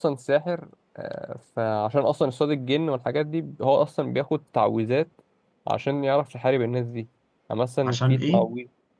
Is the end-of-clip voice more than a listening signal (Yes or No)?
No